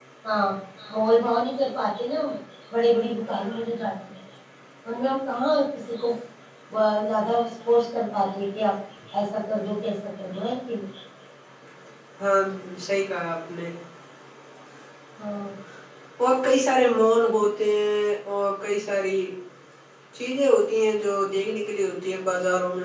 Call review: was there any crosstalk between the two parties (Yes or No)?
No